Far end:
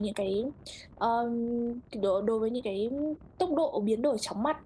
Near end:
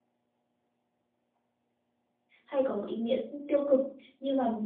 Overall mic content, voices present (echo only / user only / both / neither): user only